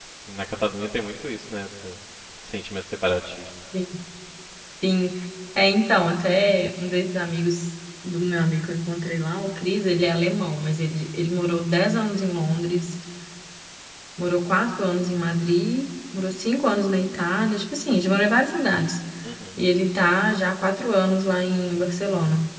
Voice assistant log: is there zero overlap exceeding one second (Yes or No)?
Yes